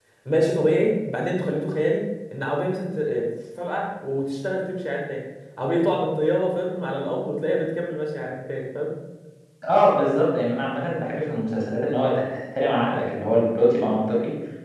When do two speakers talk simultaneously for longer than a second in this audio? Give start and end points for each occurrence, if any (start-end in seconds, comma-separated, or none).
none